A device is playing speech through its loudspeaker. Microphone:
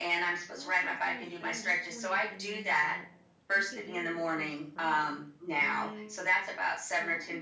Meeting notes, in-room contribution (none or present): present